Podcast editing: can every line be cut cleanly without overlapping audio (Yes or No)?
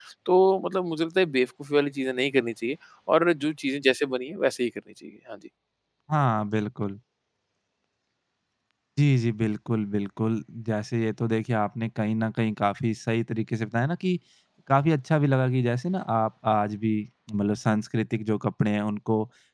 Yes